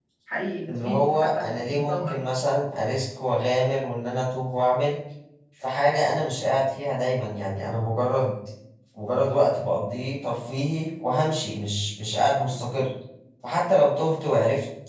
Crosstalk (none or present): present